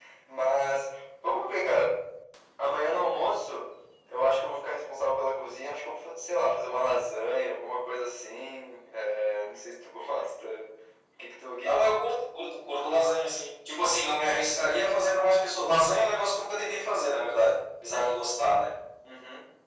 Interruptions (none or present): none